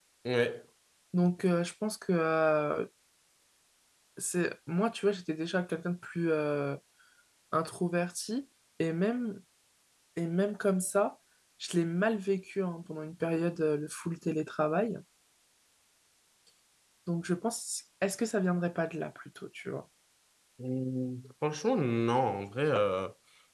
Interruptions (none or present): none